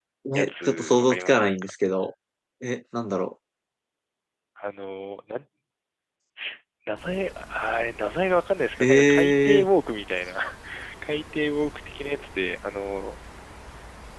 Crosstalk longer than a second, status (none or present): present